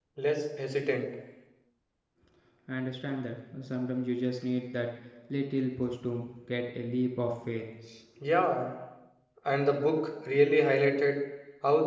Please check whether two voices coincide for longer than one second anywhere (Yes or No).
No